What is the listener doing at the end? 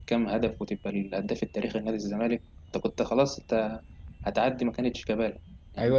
taking over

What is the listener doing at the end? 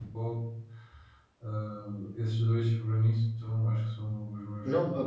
taking over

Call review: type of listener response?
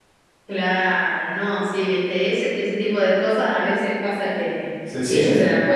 listening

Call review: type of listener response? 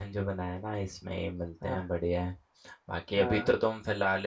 listening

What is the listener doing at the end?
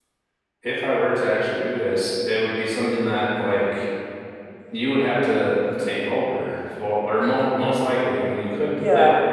taking over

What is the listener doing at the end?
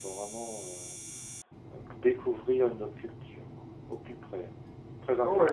taking over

